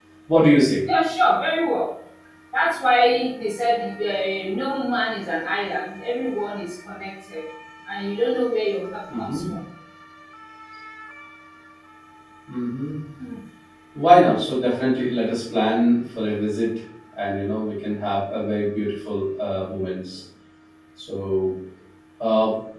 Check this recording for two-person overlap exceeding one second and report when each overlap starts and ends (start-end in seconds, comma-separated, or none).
none